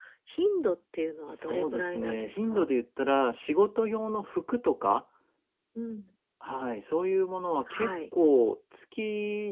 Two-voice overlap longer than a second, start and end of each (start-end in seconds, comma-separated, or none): 1.3-2.6